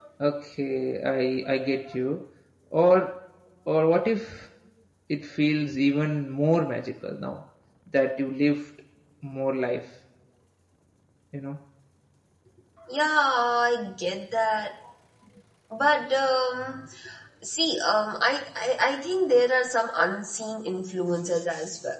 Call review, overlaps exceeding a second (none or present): none